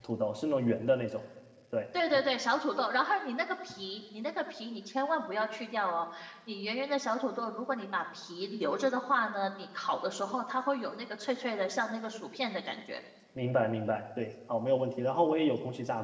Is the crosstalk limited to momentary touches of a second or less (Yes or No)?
Yes